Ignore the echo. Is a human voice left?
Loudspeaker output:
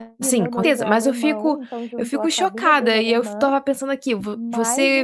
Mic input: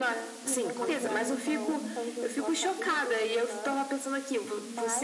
Yes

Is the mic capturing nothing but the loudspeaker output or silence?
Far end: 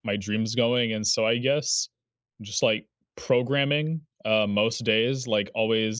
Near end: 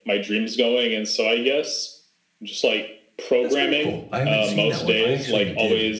No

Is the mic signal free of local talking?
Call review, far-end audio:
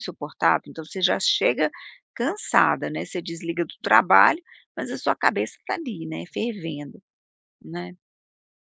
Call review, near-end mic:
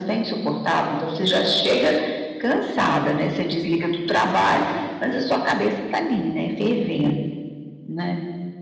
Yes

